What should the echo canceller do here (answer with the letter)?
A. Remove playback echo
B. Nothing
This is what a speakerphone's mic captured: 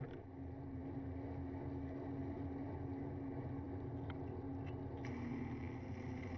B